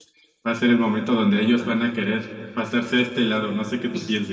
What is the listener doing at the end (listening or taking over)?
taking over